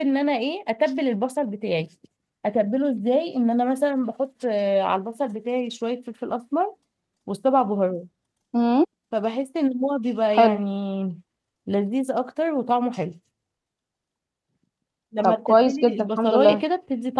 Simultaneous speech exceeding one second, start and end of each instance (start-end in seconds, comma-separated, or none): 15.2-16.6